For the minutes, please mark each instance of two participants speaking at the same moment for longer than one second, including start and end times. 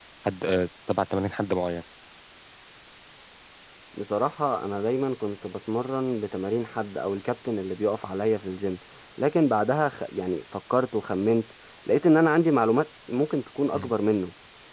none

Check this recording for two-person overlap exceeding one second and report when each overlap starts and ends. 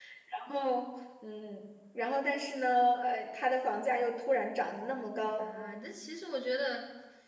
none

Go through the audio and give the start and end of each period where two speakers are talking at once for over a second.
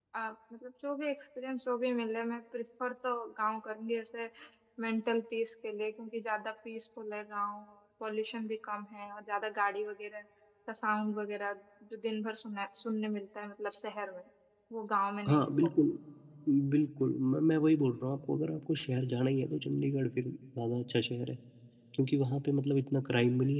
none

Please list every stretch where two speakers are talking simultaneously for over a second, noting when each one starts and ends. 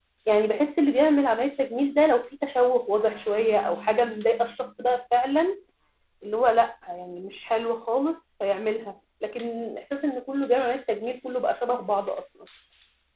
none

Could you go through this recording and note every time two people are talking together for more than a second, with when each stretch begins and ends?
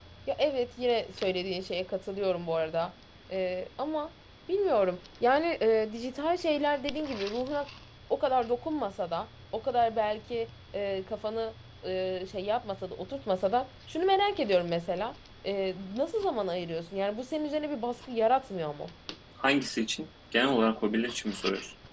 none

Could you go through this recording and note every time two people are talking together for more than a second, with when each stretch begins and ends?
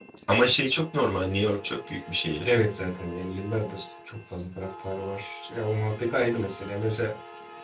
none

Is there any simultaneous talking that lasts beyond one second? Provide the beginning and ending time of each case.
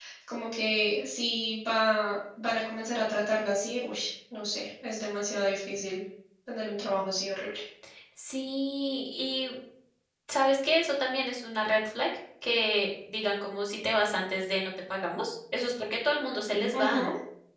none

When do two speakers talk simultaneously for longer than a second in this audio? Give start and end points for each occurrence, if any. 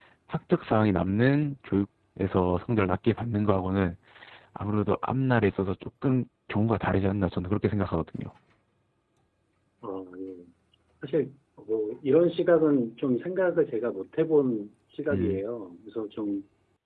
none

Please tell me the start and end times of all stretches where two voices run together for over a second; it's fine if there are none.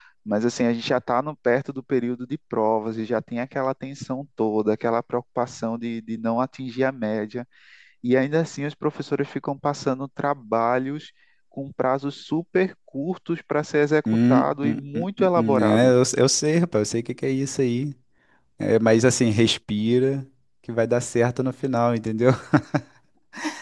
14.3-15.9

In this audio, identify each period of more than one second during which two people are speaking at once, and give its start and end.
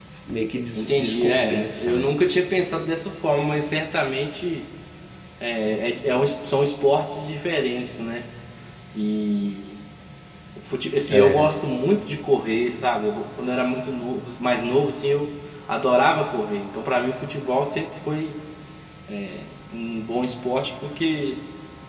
0.7-2.0

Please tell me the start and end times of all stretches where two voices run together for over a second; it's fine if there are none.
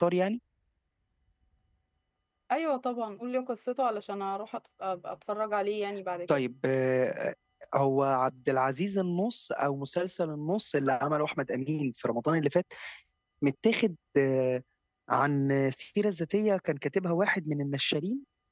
none

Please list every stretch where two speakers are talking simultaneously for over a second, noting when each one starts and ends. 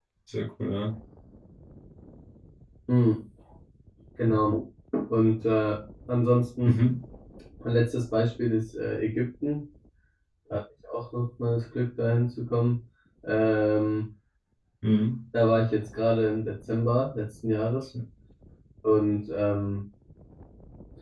none

